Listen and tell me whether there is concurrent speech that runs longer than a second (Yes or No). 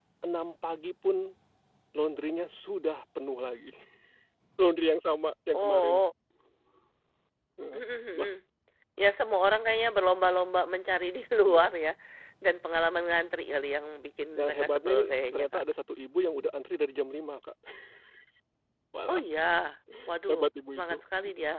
Yes